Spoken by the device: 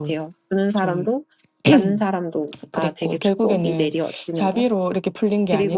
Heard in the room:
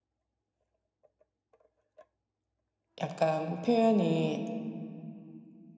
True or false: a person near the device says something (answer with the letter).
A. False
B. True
B